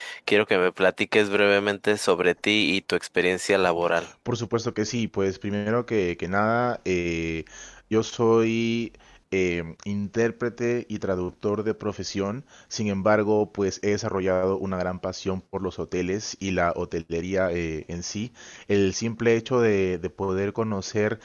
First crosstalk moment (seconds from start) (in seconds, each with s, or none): none